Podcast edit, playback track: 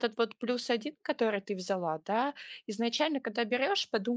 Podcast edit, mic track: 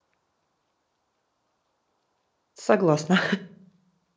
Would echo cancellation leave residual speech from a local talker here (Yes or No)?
Yes